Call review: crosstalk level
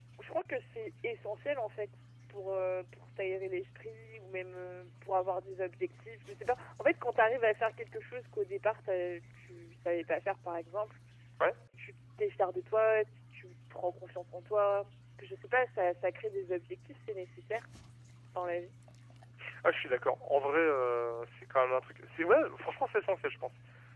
none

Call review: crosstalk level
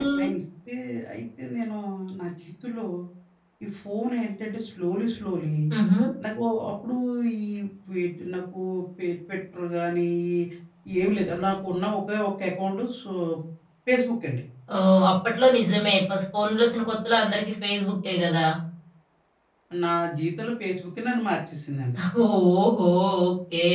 none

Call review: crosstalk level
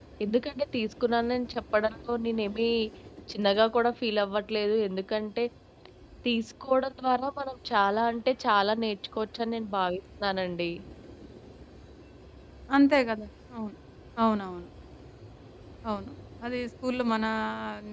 none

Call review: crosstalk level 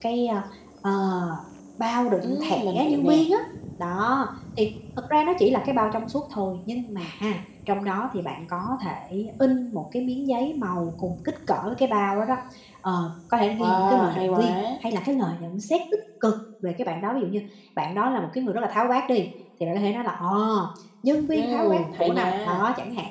present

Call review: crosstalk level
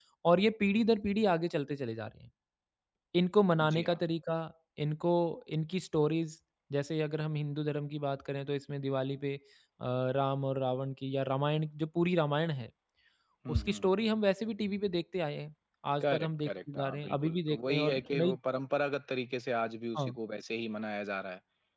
present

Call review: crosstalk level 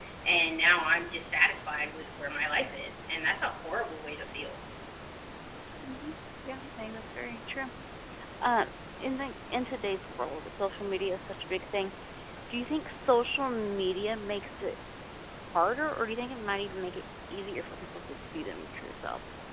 none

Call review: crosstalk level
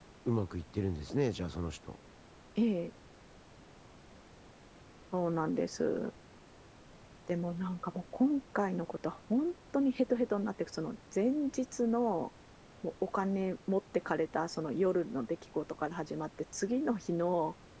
none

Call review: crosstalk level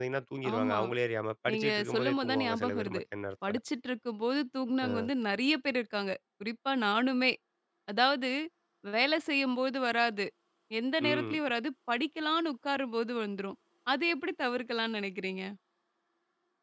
present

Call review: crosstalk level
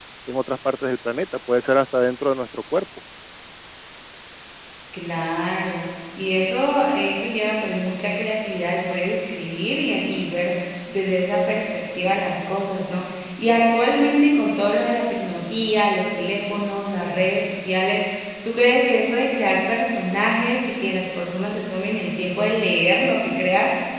none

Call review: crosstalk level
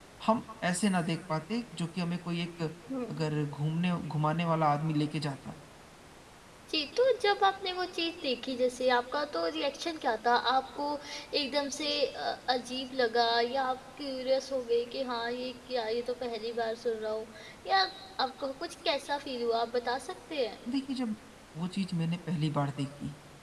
none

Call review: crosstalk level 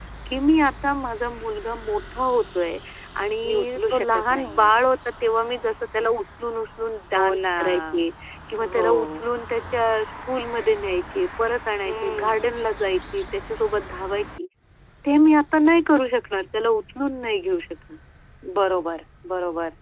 present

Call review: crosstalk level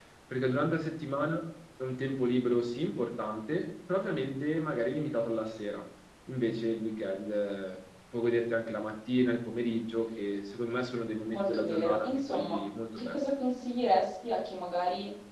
present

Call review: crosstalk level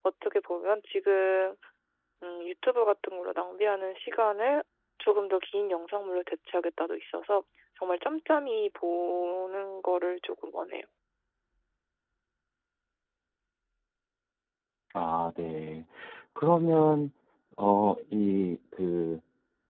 none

